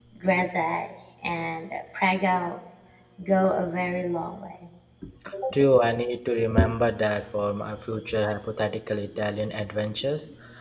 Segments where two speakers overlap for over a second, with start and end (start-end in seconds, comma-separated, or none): none